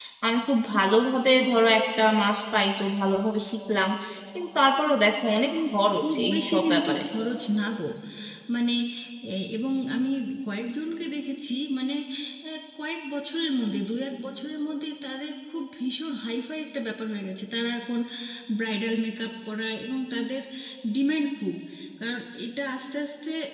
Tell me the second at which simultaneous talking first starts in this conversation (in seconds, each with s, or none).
5.5 s